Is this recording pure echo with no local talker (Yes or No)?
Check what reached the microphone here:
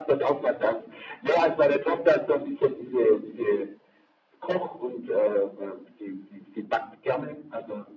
Yes